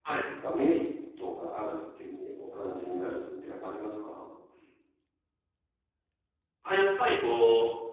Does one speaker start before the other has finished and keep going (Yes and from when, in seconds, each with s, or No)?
No